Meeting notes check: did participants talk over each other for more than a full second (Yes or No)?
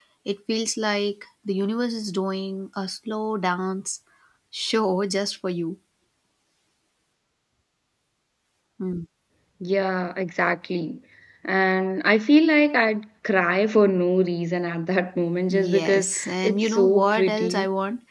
Yes